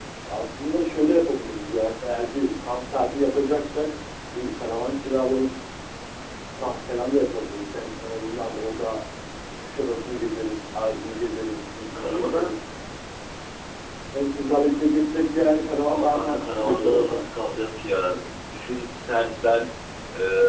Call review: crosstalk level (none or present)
present